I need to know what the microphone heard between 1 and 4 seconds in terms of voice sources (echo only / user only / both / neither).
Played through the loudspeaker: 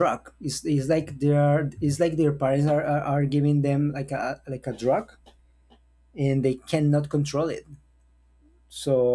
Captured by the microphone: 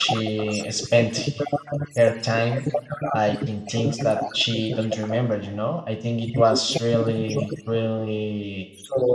both